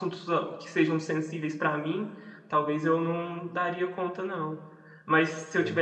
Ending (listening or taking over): listening